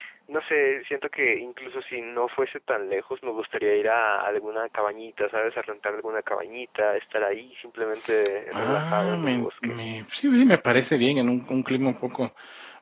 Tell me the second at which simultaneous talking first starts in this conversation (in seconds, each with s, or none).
8.5 s